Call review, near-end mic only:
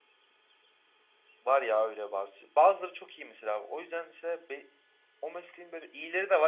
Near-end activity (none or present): present